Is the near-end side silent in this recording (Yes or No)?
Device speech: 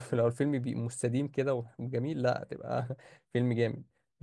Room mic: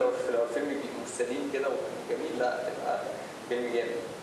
Yes